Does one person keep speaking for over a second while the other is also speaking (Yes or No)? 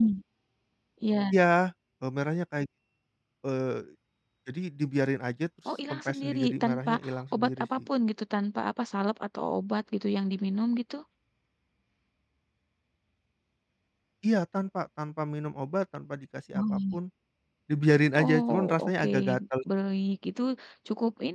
Yes